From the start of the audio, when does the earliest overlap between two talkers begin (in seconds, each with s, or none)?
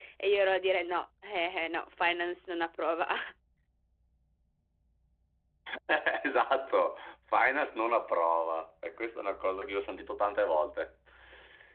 none